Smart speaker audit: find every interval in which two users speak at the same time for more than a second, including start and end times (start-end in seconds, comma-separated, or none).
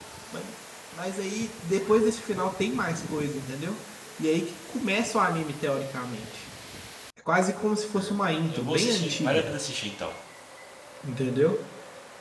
7.9-9.4